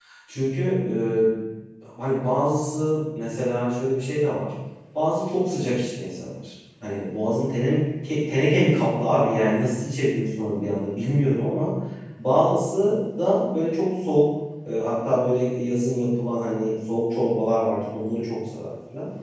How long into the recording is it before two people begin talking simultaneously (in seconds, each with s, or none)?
none